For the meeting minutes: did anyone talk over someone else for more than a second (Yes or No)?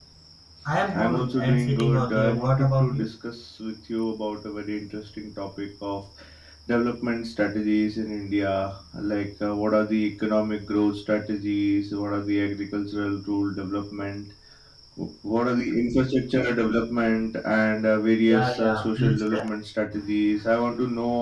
Yes